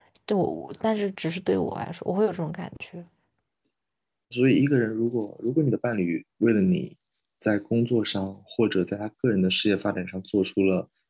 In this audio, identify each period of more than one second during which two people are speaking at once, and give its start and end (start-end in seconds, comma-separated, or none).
none